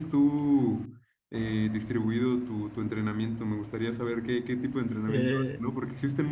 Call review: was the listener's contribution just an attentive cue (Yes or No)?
Yes